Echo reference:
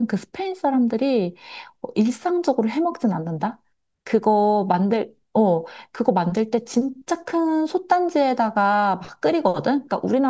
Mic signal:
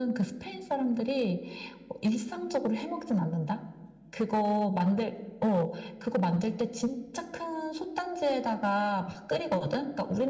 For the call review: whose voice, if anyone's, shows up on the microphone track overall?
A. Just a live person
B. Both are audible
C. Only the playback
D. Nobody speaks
C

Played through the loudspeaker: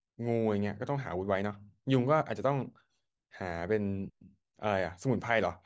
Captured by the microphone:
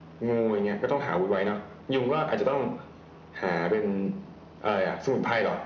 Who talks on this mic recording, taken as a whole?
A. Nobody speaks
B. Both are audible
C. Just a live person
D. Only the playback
D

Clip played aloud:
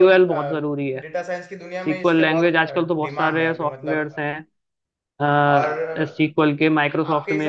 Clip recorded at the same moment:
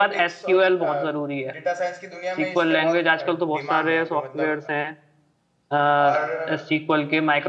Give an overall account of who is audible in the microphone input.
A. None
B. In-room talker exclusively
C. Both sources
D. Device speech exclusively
D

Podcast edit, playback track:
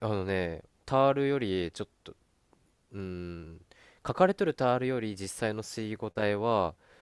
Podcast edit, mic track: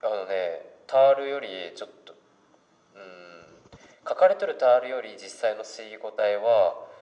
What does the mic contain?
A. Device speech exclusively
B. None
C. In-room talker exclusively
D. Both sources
A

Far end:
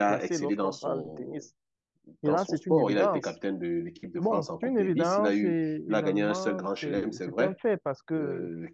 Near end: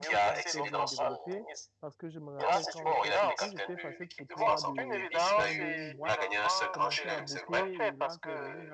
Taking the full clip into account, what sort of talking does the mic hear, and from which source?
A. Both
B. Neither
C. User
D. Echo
A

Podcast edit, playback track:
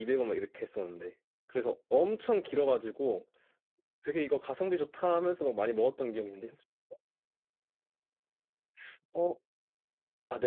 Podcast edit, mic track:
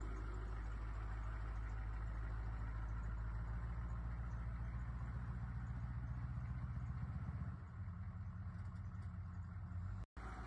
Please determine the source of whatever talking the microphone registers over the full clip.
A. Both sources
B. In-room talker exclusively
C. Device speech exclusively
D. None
D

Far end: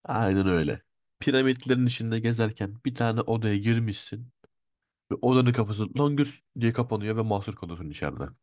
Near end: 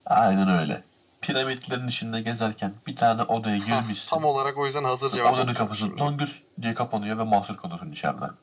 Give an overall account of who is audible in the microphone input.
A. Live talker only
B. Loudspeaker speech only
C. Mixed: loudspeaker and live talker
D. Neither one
C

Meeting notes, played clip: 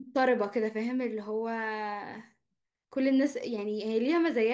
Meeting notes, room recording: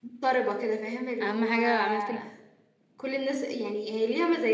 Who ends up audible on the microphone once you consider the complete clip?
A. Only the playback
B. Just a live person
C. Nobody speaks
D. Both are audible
D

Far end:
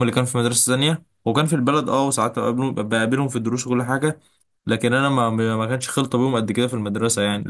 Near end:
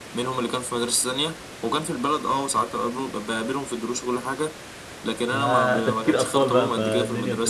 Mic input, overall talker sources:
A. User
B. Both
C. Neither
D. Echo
B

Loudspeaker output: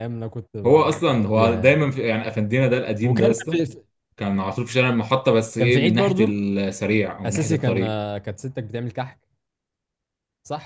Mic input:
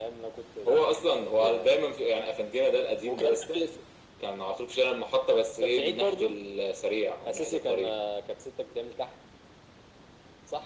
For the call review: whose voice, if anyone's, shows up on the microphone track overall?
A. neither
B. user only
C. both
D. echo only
D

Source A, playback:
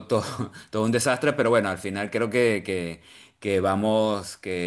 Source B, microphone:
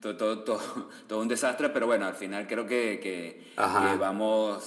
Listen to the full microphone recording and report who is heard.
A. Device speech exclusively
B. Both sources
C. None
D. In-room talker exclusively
B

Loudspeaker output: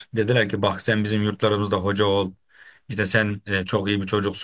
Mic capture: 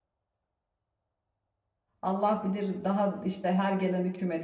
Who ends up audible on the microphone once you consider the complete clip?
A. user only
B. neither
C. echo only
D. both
A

